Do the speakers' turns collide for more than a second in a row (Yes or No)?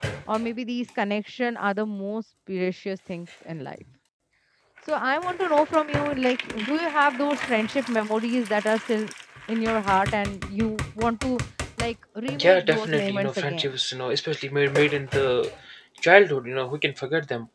Yes